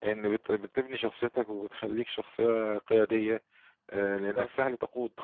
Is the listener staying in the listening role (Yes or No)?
Yes